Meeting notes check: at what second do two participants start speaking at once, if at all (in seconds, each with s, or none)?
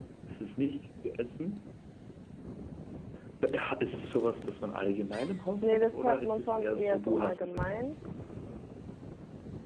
5.6 s